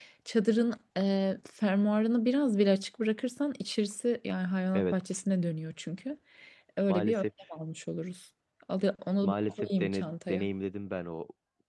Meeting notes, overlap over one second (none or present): present